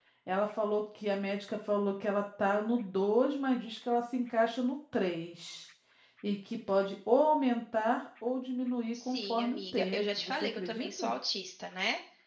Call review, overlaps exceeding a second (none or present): present